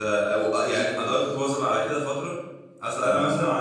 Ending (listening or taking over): listening